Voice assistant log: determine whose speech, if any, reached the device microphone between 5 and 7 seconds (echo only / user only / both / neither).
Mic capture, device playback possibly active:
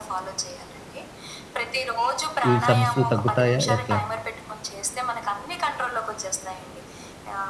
echo only